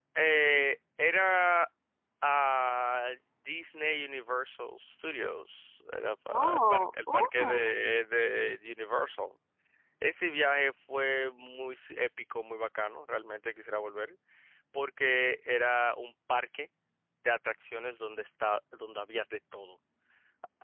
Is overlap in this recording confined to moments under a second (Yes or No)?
No